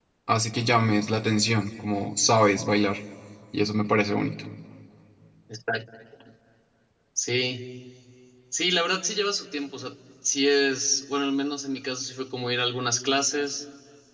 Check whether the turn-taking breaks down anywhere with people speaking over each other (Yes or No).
No